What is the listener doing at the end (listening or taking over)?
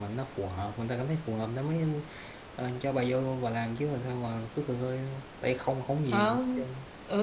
taking over